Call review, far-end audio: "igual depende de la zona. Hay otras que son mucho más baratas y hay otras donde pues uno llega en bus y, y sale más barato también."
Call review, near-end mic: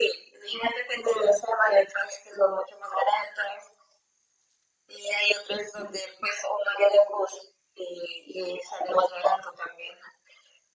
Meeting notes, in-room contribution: none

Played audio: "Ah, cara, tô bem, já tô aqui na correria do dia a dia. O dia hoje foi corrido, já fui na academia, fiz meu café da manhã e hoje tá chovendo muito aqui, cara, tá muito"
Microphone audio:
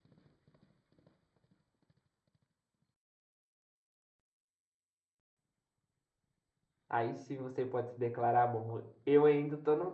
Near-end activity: present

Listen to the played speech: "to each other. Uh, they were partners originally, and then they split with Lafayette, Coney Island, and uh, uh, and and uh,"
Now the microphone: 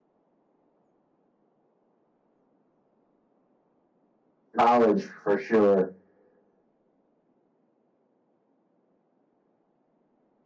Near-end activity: present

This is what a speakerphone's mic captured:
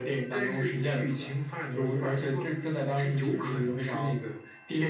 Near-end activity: none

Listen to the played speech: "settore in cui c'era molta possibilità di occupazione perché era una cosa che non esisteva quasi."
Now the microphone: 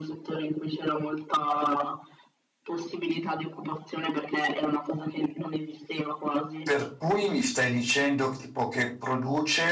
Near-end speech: present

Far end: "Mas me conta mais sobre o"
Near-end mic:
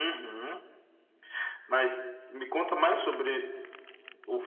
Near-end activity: none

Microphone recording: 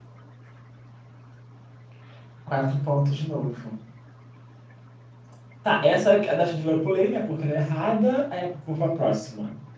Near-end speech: present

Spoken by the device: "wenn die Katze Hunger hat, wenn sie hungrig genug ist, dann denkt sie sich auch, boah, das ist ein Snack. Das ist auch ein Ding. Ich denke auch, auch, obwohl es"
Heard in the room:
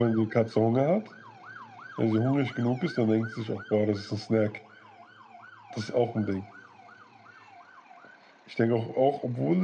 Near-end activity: none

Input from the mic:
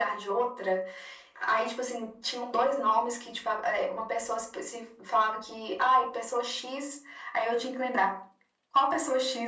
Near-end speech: none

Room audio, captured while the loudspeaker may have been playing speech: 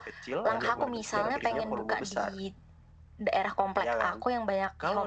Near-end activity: present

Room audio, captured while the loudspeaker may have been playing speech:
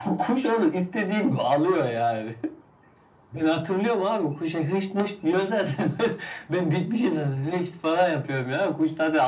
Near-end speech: none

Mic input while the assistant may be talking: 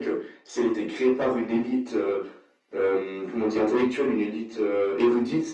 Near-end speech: none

